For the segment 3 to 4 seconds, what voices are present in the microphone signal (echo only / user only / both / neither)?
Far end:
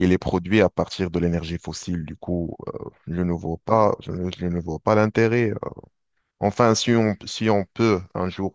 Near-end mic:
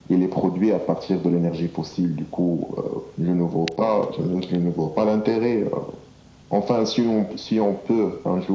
echo only